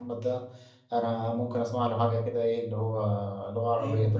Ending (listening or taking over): taking over